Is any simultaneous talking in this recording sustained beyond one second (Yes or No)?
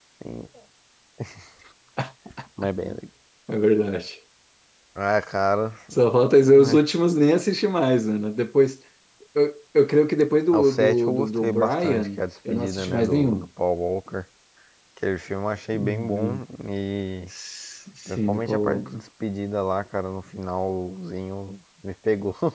Yes